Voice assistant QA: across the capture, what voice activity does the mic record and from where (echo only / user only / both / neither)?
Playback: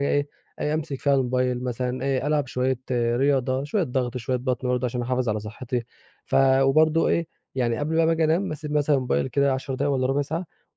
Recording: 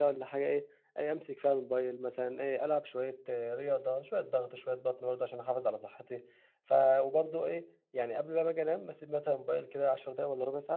echo only